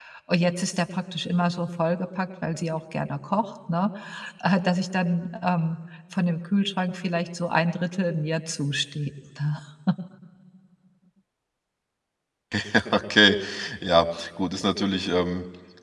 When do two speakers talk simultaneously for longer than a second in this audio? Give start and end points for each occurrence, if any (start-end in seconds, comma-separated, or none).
none